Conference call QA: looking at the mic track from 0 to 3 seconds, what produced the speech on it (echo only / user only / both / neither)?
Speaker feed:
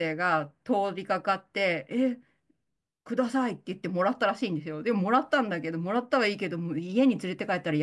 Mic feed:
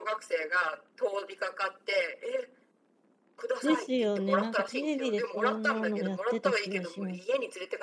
echo only